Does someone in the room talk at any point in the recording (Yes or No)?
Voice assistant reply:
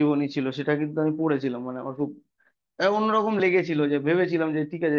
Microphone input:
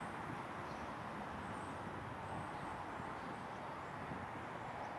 No